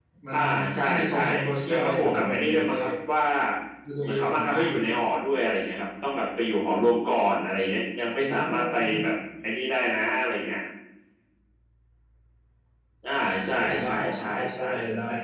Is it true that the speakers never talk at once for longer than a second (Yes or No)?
No